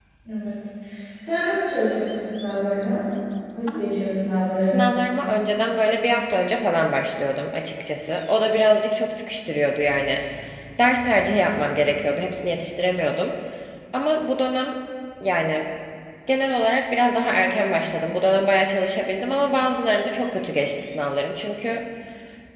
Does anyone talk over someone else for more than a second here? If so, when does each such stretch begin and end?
none

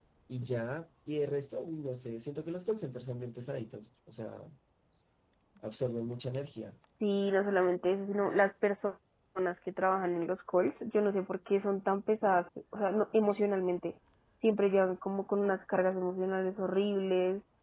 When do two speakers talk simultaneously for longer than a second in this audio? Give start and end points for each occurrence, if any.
none

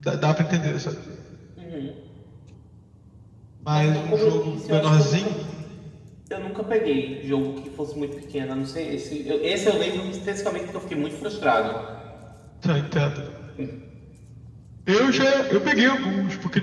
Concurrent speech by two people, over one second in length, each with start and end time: 3.7-5.4

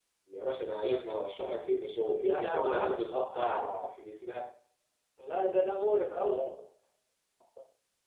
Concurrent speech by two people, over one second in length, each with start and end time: 2.2-4.0

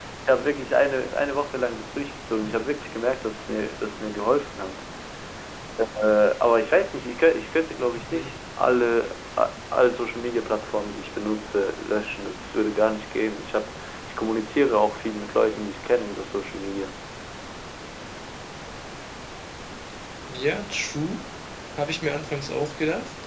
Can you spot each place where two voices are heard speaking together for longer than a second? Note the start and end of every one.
none

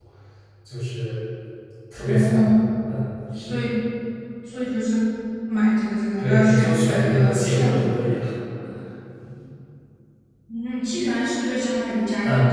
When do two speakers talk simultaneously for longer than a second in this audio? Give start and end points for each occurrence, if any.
6.2-7.9

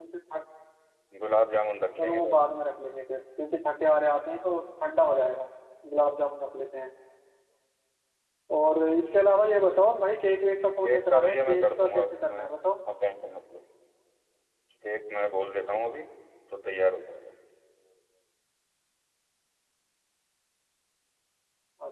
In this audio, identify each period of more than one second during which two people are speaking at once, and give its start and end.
10.8-12.5

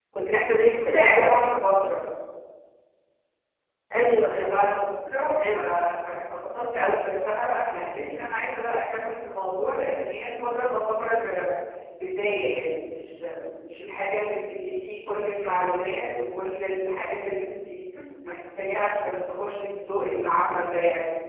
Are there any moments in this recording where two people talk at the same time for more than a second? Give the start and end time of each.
none

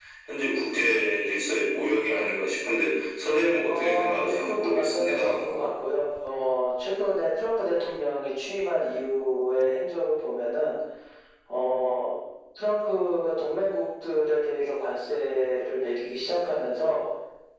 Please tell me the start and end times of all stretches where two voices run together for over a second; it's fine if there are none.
3.7-5.3

